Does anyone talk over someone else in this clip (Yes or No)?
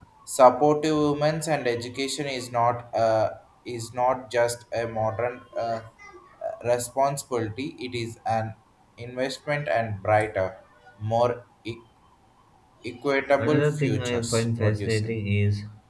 Yes